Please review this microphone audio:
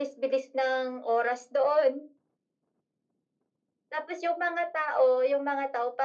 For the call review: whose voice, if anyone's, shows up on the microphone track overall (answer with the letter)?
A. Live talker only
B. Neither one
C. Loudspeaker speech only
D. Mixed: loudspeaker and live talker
C